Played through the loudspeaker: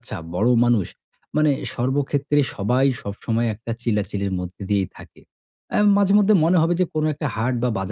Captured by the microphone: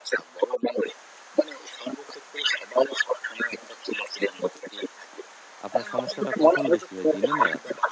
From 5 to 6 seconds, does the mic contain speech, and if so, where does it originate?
both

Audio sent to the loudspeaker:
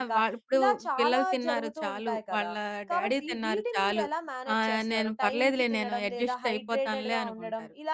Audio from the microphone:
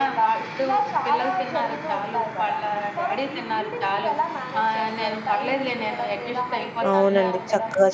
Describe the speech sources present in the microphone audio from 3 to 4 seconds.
echo only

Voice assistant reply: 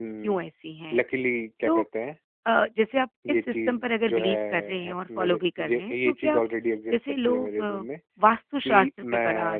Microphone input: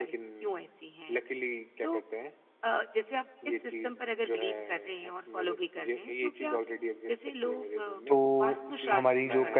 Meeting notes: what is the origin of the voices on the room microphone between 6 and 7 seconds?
echo only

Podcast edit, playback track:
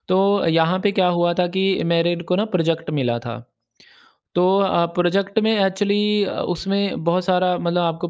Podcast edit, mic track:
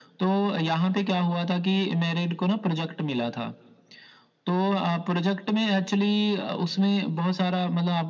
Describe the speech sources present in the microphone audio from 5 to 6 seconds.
echo only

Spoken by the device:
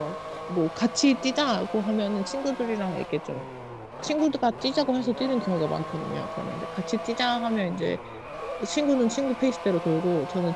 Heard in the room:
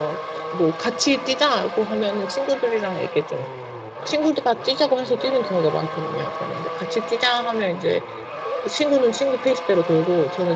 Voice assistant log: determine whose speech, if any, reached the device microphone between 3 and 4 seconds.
echo only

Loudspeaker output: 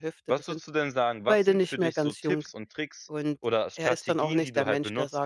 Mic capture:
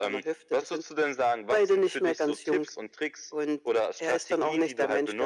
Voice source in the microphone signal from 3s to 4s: echo only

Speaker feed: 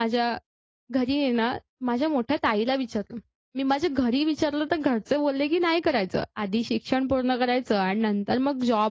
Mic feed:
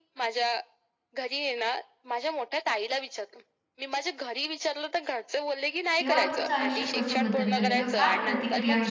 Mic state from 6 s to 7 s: both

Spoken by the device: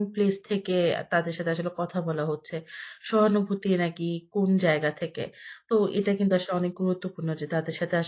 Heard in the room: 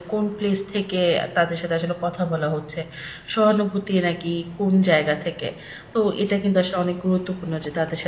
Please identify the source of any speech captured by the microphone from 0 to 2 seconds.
echo only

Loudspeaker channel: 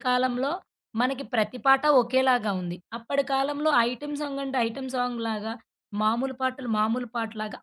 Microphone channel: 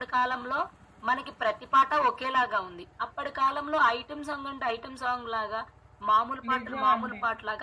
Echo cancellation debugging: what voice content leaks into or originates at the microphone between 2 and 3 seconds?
echo only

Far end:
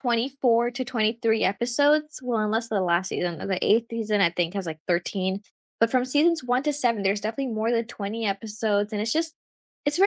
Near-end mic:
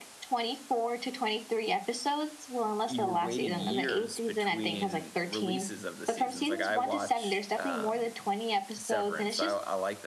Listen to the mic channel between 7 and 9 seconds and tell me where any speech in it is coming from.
both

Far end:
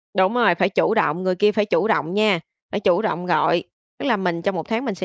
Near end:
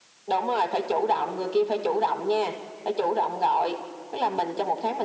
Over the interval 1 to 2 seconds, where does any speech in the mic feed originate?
echo only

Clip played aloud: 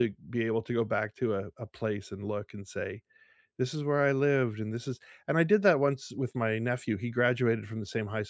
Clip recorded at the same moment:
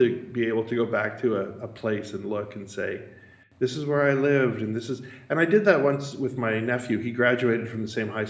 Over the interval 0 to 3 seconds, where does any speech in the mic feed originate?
echo only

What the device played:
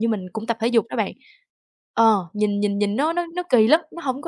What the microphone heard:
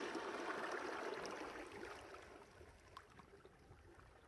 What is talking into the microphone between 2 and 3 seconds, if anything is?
neither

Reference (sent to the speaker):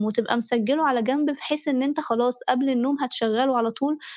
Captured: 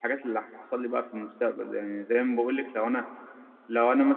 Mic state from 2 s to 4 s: user only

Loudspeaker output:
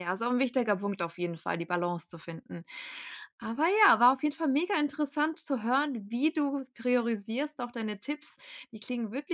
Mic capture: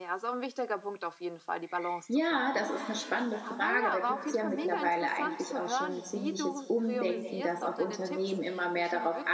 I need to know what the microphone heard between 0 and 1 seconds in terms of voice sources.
echo only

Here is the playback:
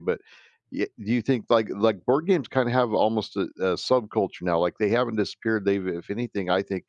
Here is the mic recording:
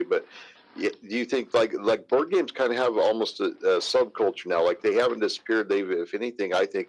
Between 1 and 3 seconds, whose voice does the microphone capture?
echo only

